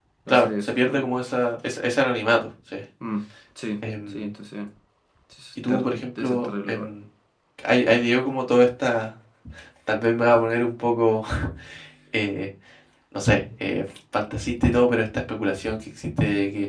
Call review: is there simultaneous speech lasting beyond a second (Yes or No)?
Yes